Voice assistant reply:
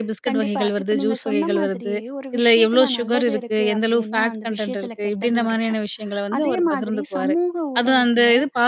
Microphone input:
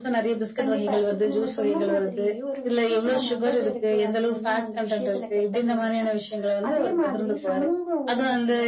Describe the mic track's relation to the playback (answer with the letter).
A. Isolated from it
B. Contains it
B